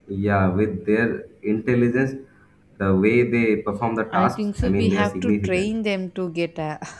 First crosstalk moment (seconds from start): 4.1 s

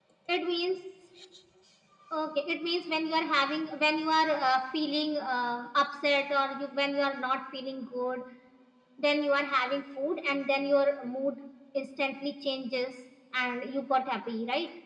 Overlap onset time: none

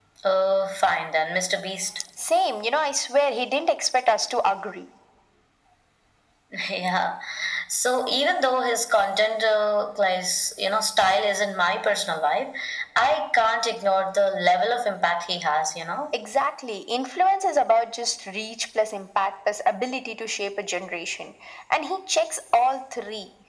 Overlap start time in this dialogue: none

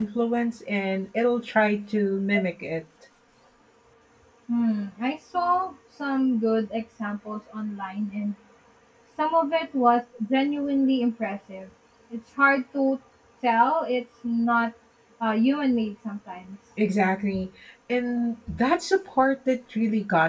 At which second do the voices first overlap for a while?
none

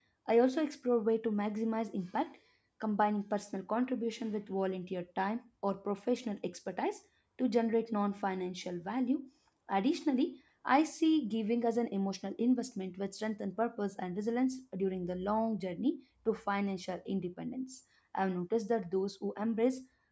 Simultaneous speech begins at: none

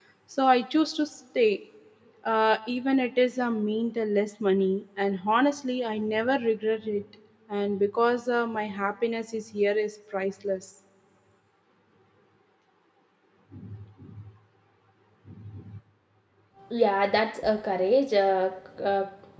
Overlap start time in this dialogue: none

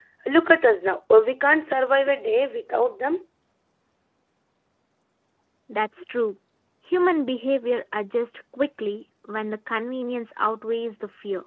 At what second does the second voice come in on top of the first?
none

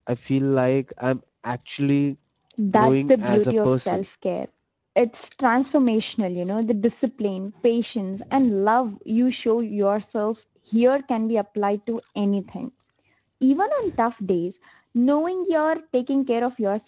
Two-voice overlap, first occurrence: 2.7 s

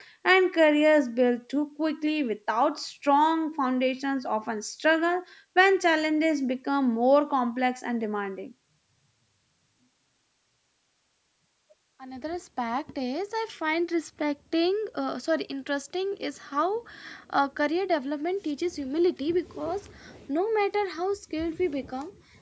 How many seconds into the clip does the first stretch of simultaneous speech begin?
none

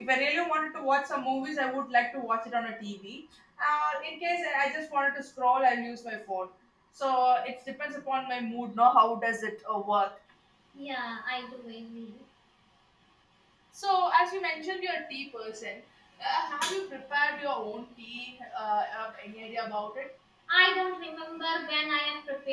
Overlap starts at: none

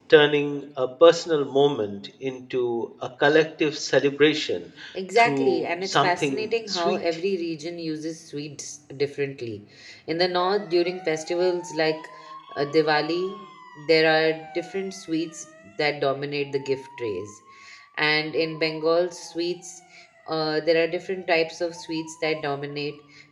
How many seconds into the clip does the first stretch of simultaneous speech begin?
5.2 s

